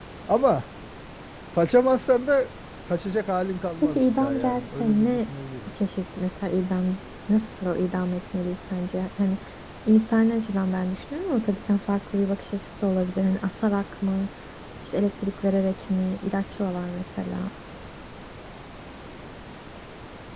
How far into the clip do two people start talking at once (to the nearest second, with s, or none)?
4 s